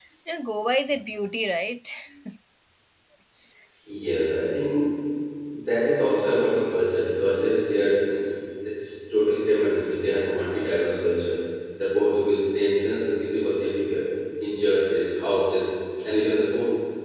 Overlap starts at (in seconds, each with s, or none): none